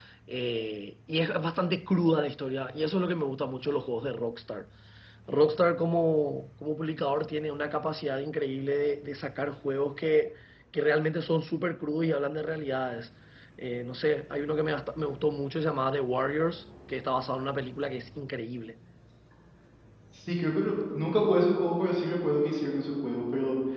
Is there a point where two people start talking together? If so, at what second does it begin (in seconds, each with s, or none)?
none